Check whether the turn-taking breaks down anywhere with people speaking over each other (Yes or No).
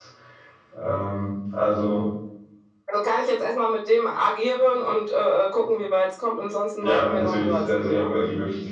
Yes